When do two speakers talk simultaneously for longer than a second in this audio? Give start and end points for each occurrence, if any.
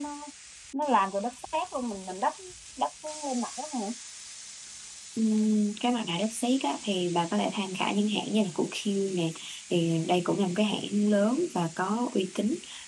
none

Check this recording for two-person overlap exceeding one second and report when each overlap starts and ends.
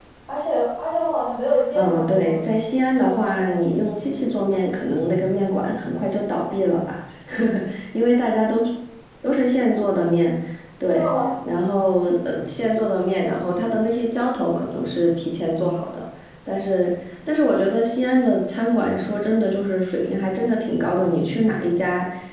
1.8-3.5

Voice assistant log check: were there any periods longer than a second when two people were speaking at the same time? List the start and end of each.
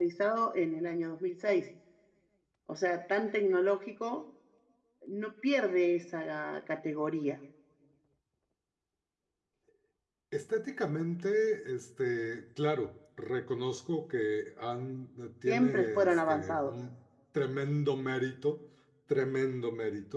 15.5-16.7

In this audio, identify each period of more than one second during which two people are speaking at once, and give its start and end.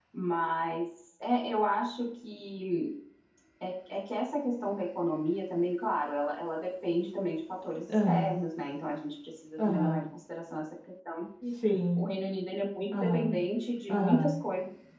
none

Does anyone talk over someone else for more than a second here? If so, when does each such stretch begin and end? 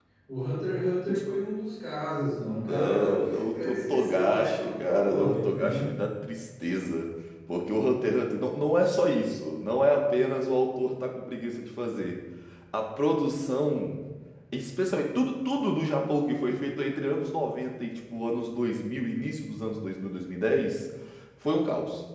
2.6-5.8

